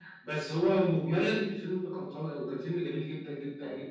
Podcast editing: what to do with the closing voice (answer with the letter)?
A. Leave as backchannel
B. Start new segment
B